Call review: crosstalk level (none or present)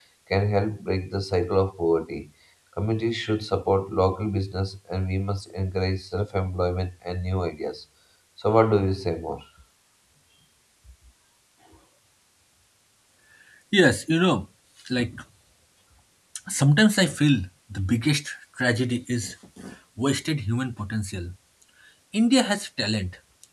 none